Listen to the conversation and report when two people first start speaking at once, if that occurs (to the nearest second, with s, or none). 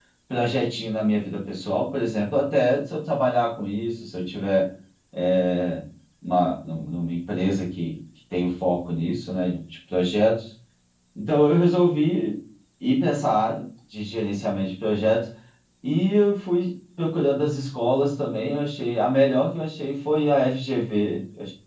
none